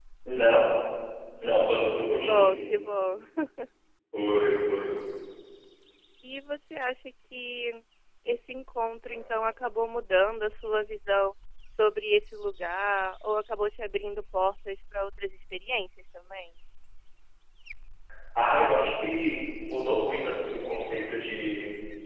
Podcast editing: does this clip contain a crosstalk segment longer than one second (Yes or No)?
No